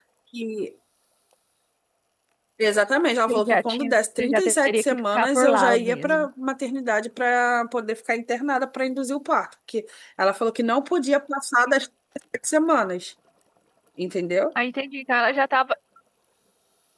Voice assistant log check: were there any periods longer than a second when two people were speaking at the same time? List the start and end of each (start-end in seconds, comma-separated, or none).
3.3-6.3